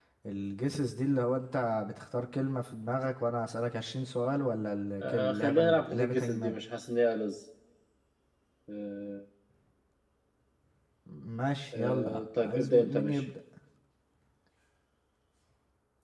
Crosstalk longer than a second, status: present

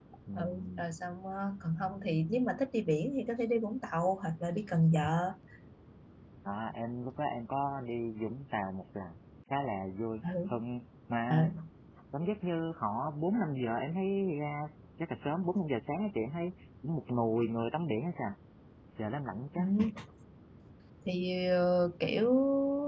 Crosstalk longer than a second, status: none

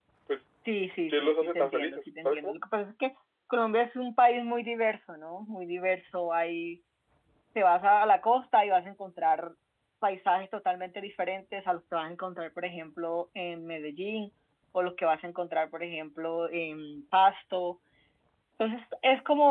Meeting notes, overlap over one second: present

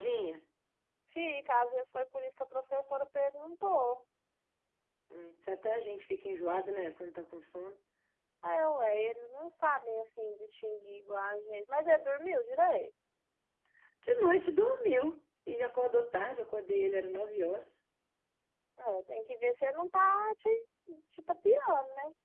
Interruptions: none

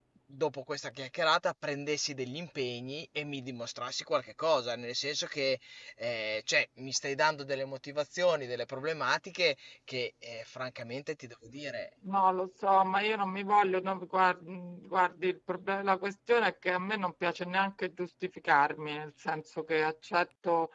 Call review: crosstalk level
none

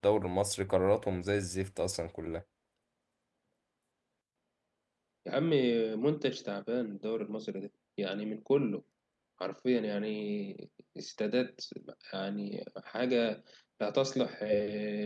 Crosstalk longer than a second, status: none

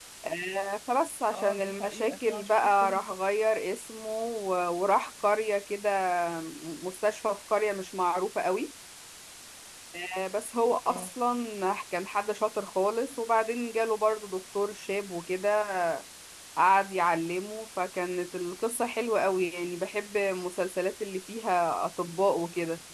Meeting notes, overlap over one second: present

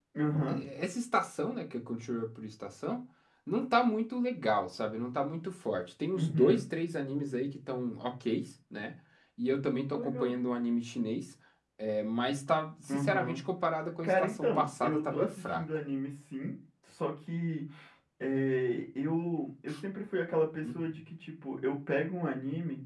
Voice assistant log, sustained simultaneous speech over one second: present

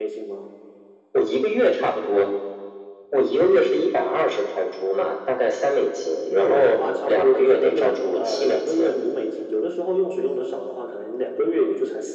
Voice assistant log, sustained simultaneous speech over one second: present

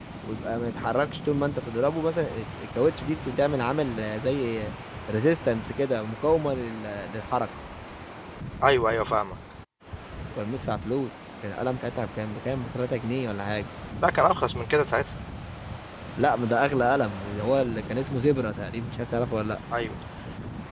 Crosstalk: none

